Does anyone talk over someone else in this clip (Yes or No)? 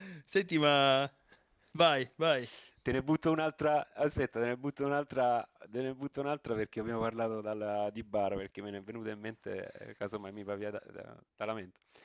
No